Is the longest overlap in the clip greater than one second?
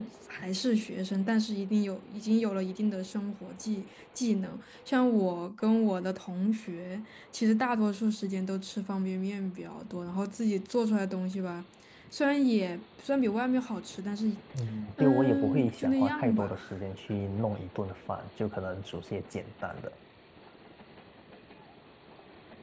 Yes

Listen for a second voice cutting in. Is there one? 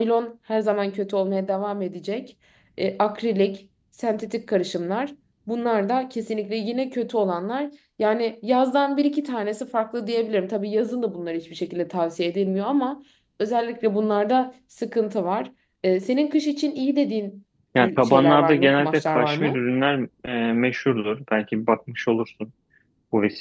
Yes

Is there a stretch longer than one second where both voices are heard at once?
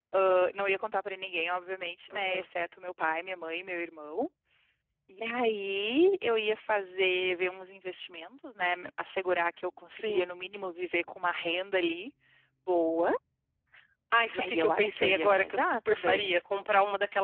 Yes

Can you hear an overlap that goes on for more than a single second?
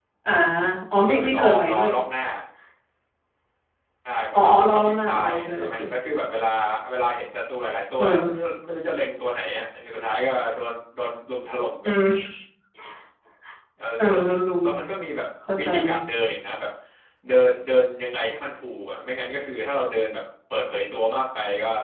Yes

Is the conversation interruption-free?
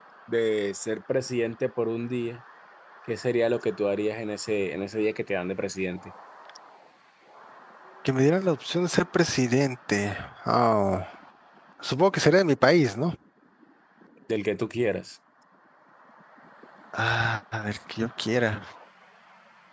Yes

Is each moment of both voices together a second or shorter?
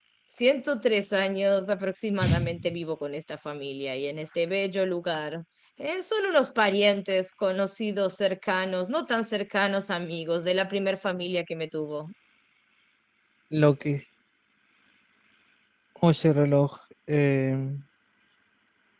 Yes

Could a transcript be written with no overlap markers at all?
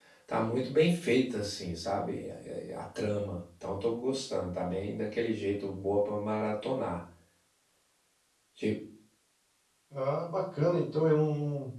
Yes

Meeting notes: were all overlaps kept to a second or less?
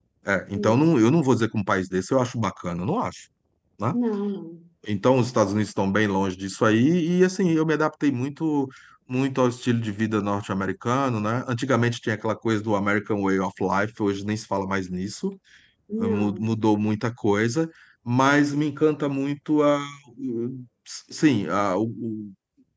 Yes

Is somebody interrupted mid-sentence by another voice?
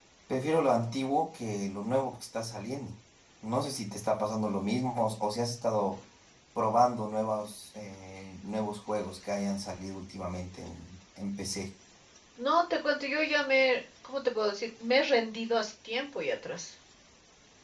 No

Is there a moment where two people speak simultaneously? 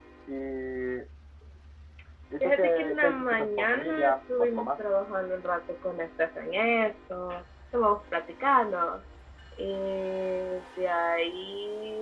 Yes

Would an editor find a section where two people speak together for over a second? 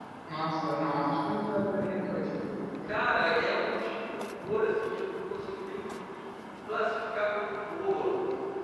No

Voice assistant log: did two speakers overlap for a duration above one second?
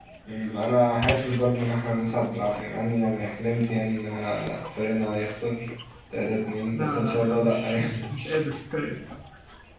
Yes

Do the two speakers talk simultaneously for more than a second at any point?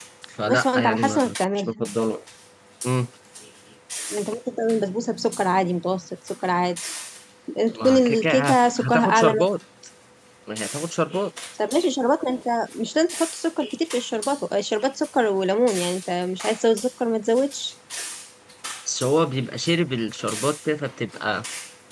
Yes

